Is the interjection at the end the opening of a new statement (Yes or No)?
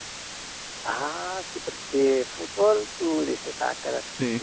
No